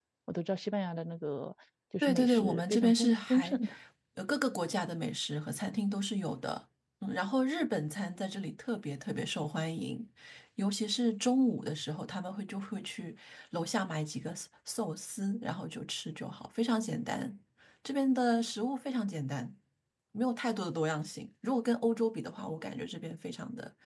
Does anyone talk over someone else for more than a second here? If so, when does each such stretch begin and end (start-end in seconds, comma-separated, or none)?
2.0-3.6